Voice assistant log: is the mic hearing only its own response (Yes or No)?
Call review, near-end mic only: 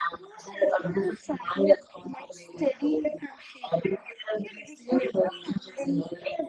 Yes